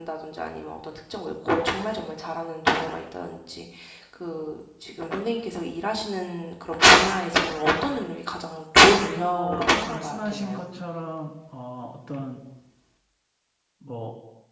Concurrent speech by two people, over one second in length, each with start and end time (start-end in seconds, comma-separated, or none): 9.2-10.6